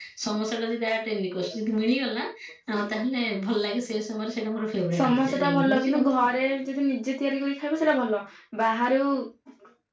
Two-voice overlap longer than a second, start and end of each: 4.9-6.3

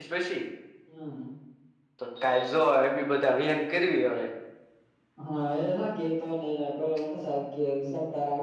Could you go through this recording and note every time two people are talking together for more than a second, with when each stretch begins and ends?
none

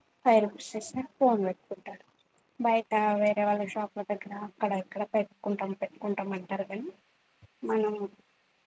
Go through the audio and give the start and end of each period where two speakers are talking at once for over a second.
none

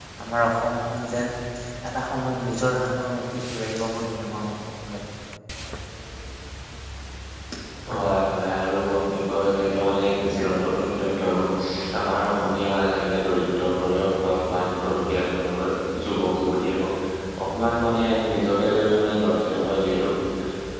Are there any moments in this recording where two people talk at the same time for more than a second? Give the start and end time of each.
none

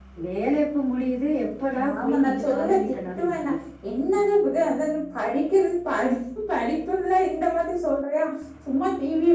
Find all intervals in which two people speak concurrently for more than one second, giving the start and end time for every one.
2.0-3.5

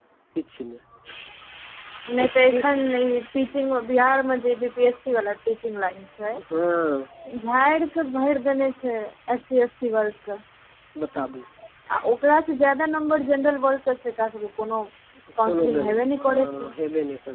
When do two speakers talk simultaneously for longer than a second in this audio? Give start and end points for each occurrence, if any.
15.5-16.7

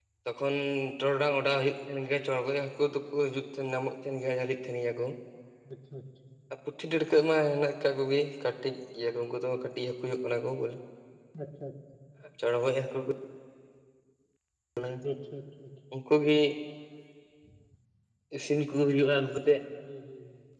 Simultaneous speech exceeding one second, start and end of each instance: none

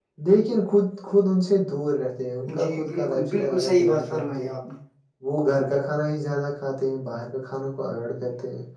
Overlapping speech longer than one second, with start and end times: 2.6-4.5

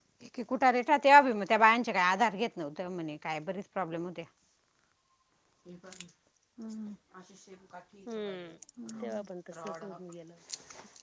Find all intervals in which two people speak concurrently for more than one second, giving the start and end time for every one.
none

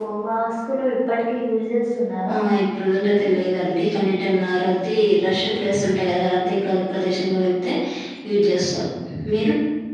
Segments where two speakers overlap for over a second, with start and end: none

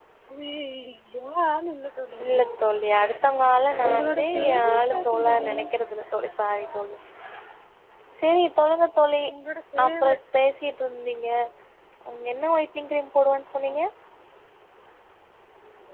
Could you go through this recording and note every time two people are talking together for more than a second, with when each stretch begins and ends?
3.9-5.5

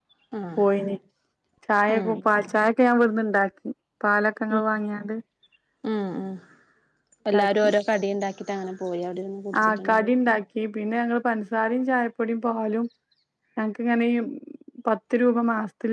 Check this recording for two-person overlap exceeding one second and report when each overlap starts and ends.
none

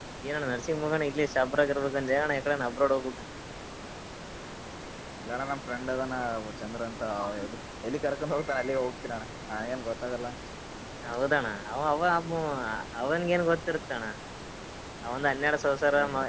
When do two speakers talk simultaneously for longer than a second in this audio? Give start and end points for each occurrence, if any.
none

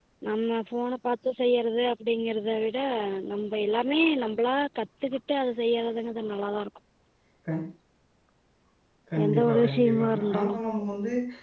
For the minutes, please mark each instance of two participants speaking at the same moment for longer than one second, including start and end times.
9.2-10.6

